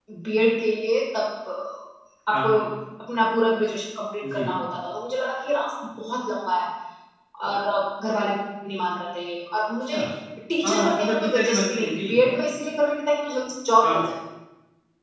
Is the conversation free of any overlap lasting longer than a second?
No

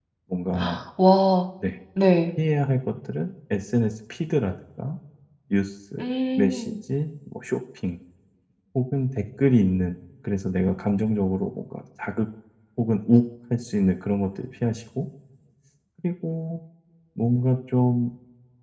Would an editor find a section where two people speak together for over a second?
No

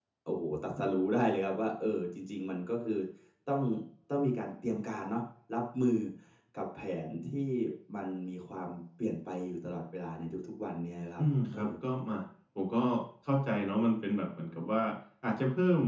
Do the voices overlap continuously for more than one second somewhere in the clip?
No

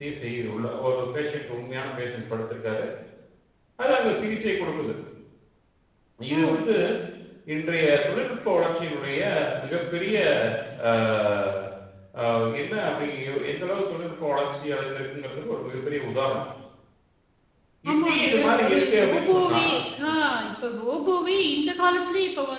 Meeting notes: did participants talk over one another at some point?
Yes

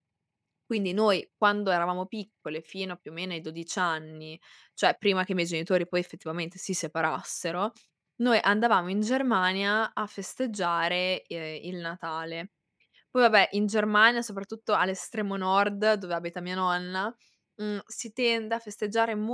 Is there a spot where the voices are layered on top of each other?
No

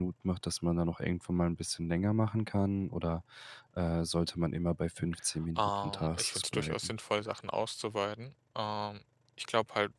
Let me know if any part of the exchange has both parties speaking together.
Yes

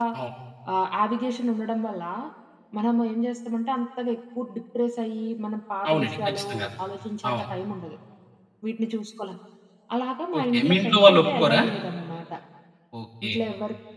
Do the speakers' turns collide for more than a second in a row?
Yes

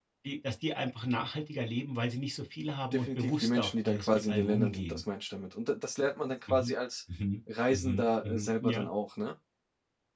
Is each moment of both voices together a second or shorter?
No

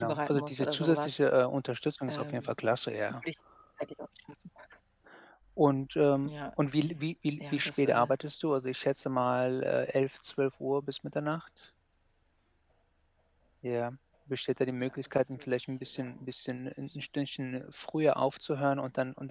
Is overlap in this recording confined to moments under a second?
No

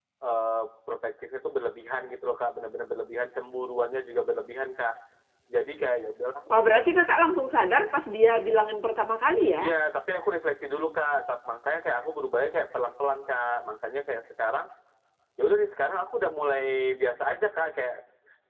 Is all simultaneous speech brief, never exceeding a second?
Yes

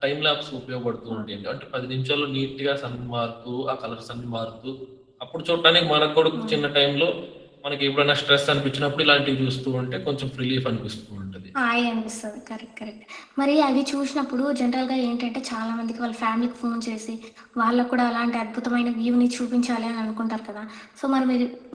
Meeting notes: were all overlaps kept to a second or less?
Yes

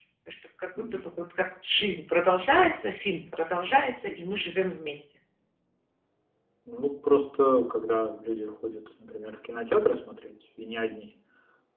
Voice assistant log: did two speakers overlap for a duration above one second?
No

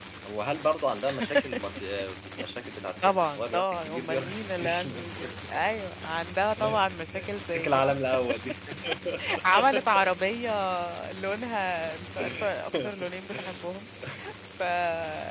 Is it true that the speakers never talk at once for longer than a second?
No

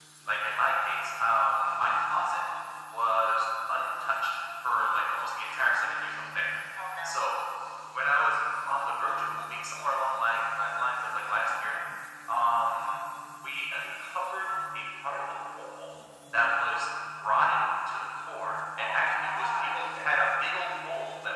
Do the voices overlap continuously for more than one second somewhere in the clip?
Yes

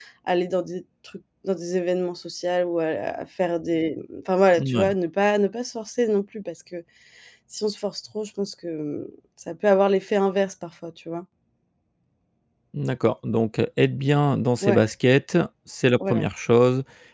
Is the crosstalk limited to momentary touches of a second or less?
Yes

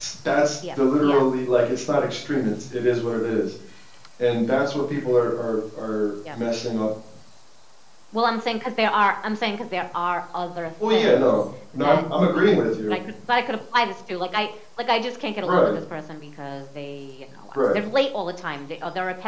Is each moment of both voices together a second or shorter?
No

